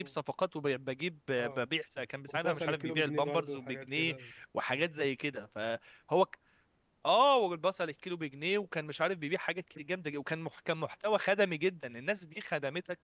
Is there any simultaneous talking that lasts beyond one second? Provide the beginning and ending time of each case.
2.4-4.1

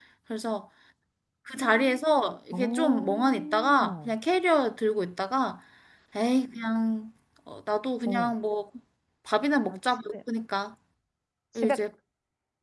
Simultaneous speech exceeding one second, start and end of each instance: 2.5-4.1

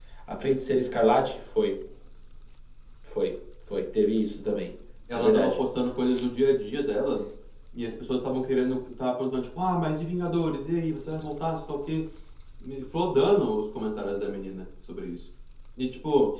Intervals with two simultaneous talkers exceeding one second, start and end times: none

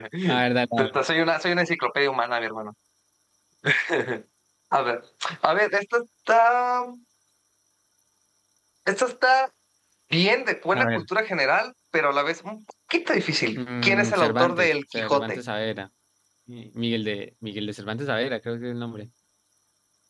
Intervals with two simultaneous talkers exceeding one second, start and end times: 13.6-15.4

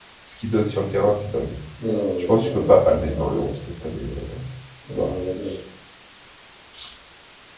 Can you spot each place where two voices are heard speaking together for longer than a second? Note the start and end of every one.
2.2-3.5

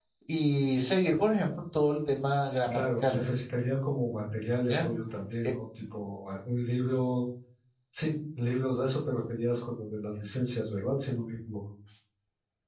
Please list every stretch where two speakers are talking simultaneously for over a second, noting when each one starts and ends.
none

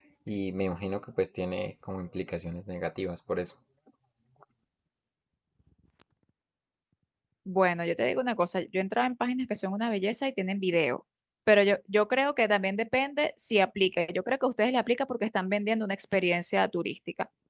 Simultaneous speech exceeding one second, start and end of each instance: none

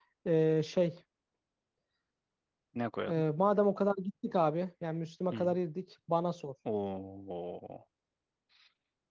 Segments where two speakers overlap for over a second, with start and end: none

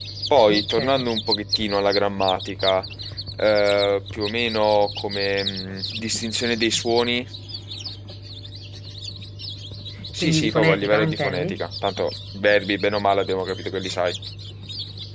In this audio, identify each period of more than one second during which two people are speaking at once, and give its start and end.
10.2-11.6

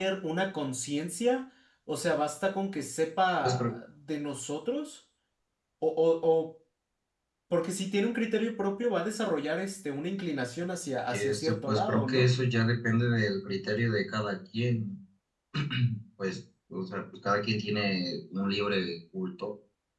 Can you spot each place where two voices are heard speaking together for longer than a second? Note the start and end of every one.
11.1-12.3

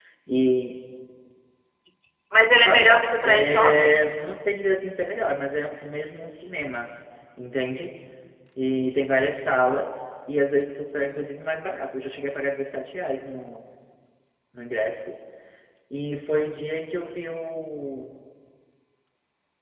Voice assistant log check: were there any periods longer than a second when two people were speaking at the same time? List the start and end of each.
2.6-4.0

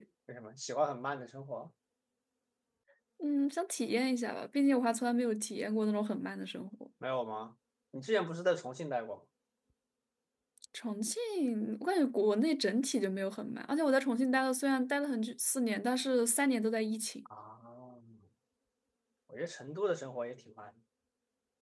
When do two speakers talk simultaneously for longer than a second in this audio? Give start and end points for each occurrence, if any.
none

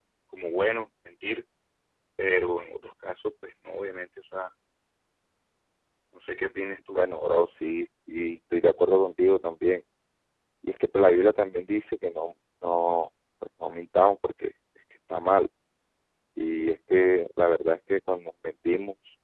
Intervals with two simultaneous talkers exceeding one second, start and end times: none

